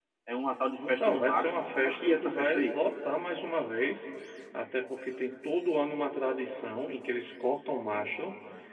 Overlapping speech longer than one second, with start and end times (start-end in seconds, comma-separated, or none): 0.8-2.7